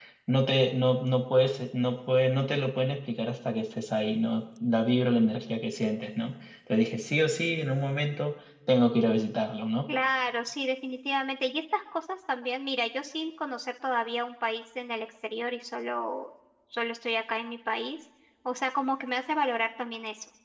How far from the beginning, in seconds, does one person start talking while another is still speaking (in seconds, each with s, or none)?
none